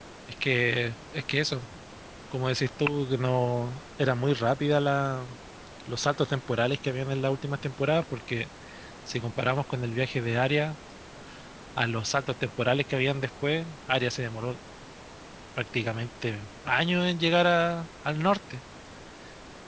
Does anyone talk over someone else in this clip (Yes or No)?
No